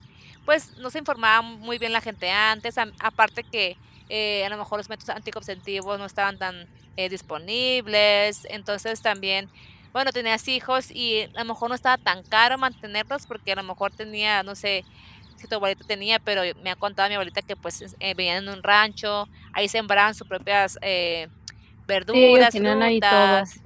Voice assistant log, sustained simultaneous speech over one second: present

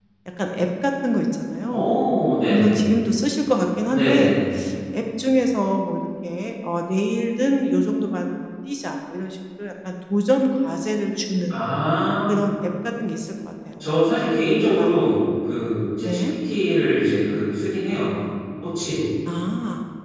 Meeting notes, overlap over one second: none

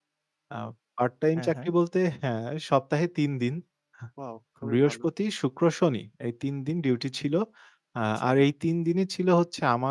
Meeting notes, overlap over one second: none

